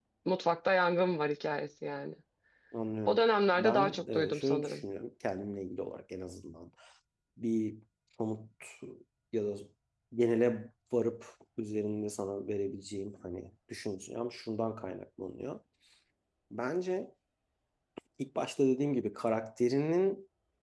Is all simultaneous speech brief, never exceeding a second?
No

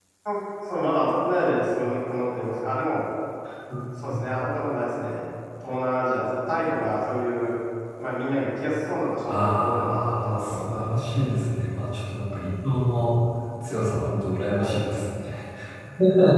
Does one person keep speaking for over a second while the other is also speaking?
Yes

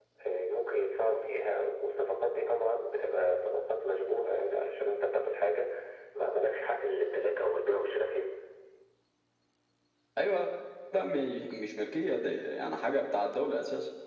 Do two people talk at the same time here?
No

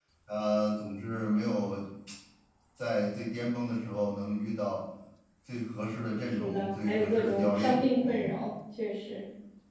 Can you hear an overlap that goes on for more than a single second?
Yes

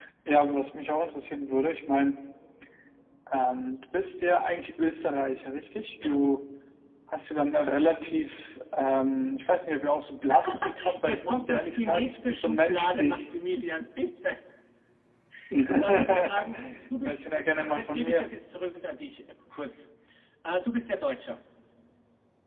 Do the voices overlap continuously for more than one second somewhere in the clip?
Yes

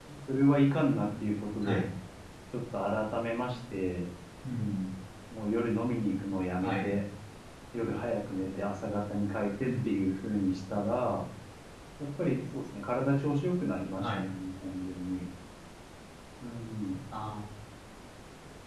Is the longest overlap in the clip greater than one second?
No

